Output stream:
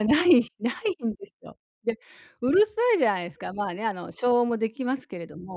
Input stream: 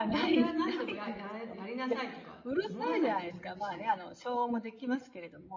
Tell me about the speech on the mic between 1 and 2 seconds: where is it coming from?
both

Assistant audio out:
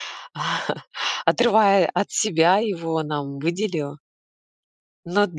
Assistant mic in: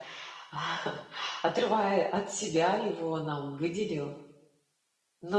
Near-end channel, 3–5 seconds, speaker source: echo only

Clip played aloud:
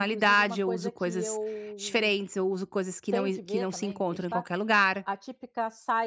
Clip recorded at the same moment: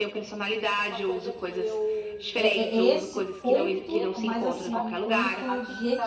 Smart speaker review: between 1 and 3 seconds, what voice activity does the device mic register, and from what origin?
both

